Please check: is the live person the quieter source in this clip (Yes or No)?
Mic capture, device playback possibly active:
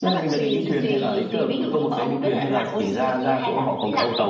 Yes